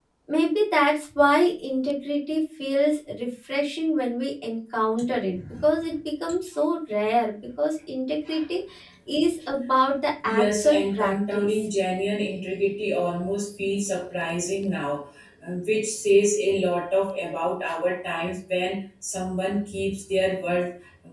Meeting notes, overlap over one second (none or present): present